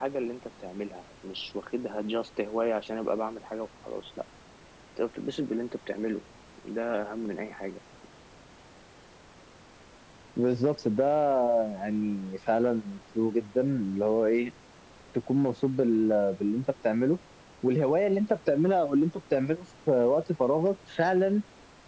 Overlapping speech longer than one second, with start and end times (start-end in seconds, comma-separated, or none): none